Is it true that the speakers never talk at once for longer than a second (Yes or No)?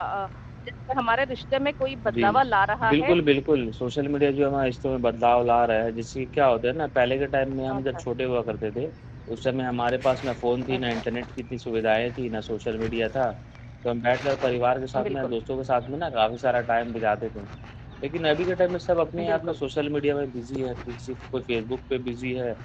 Yes